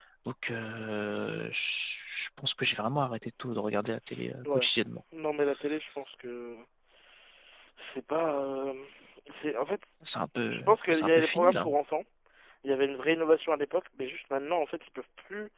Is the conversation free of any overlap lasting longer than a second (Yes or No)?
No